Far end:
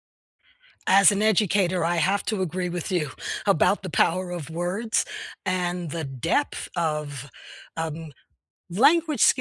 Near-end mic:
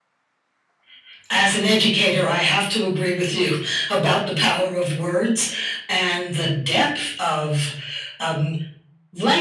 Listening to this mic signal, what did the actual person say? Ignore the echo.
none

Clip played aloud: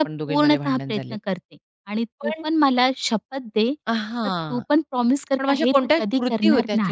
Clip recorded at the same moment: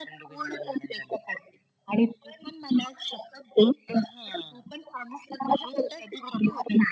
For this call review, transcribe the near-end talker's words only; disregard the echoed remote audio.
none

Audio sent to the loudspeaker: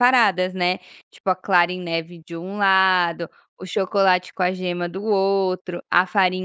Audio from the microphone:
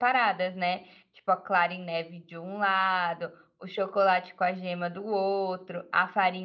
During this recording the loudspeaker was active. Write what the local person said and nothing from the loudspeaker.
none

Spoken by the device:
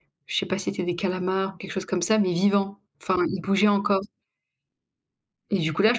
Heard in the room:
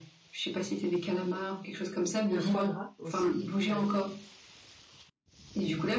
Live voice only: le foie gras aussi, bah, heu, Ouais.

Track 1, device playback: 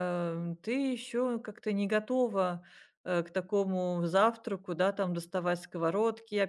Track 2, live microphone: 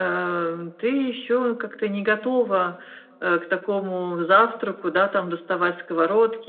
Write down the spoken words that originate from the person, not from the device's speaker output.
none

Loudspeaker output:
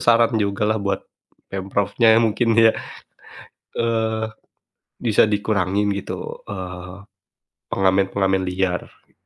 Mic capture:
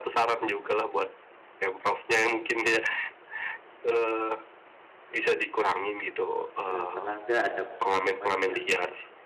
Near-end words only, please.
eee, pernah nggak ada momen-momen yang

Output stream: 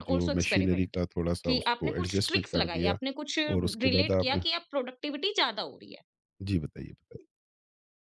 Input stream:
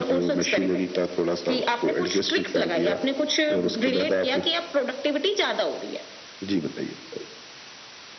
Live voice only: none

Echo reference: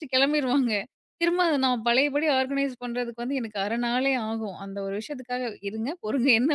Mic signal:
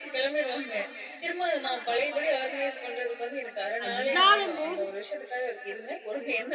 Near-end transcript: நான் இல்லாதம்போது

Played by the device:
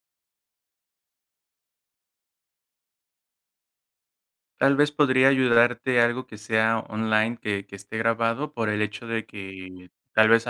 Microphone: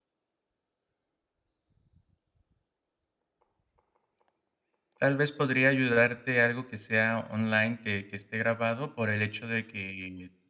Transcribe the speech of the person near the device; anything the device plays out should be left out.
none

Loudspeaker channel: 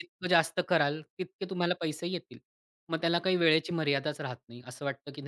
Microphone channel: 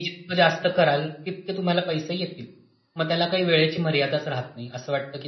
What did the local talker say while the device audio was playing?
none

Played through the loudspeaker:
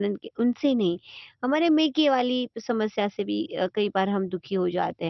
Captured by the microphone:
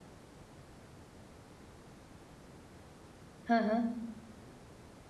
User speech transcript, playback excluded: हाँ, हाँ।

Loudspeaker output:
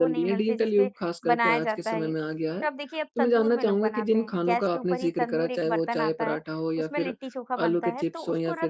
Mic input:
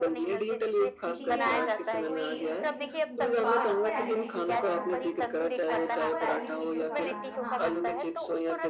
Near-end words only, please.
किसी के यहाँ कोई अ, किसी कोई पास हो गया, लिट्टी-चोखा बना दो। कुछ अच्छा हुआ है, लिट्टी-चोखा बना दो। हाँ,

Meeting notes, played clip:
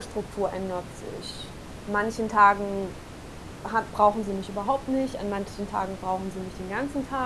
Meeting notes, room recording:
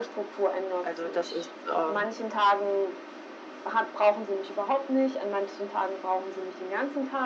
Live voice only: Also, das ist, ähm

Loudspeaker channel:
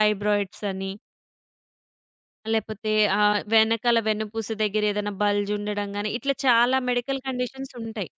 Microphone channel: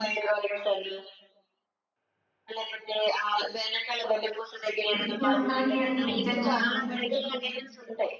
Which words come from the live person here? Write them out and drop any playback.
ప్రతి ఒక్కళ్ళకి అసలు నిజంగా

